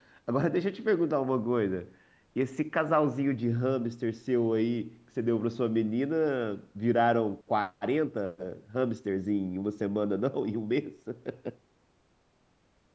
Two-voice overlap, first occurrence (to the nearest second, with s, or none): none